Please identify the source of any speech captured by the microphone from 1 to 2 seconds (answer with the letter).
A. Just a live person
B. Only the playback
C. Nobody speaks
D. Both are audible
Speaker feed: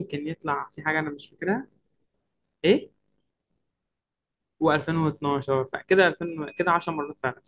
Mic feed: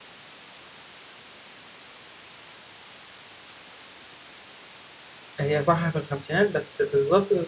C